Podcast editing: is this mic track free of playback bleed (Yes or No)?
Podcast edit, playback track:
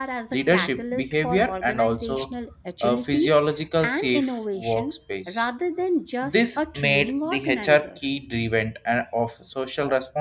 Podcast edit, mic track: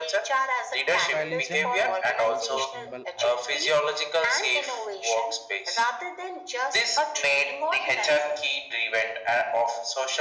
No